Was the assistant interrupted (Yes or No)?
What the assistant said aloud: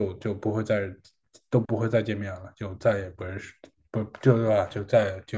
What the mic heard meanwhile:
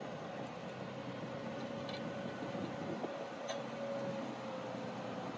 No